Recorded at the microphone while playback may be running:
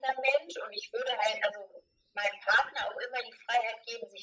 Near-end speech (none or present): none